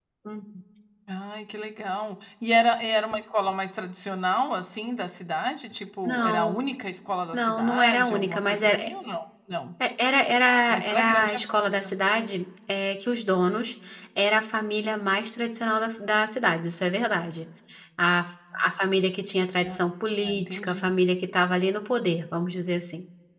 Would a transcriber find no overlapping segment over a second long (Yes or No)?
No